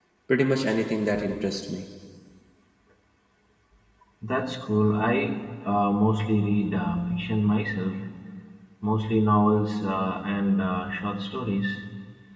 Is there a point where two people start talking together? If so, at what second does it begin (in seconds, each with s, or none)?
none